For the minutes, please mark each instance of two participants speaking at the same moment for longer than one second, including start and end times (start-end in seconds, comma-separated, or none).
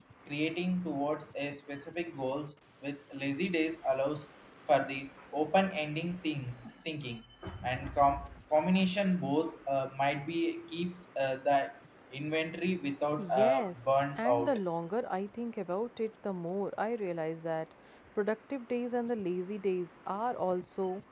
13.2-14.6